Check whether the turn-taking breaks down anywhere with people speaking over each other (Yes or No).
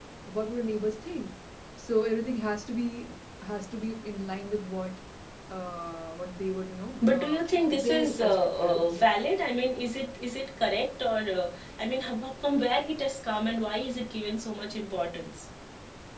Yes